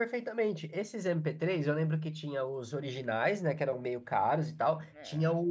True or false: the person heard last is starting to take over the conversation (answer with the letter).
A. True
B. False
B